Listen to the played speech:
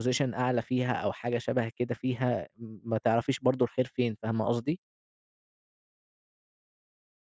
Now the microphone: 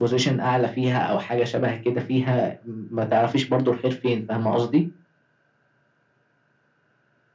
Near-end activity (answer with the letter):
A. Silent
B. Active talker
A